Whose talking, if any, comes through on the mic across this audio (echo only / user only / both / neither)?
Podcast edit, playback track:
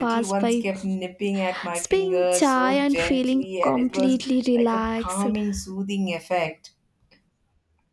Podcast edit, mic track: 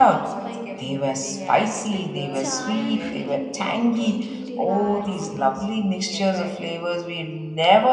both